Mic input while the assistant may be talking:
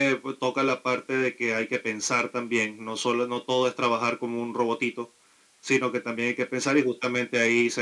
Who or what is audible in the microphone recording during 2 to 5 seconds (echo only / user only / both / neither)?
echo only